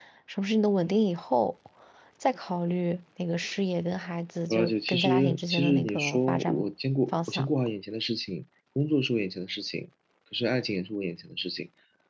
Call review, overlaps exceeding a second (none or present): present